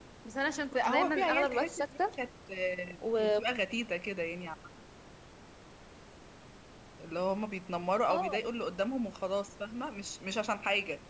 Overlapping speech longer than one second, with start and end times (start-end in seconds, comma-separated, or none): 0.8-2.0